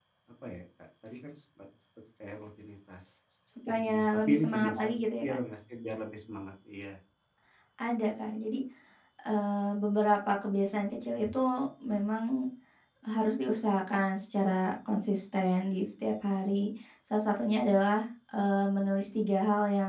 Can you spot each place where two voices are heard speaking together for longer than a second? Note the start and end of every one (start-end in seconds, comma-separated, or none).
3.7-5.4